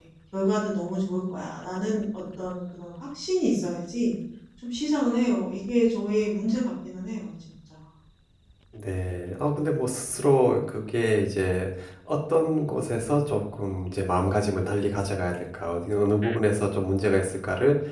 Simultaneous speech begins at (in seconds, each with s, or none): none